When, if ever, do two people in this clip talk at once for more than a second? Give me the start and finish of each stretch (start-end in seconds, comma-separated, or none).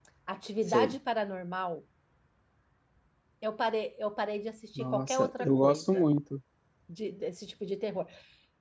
4.8-6.1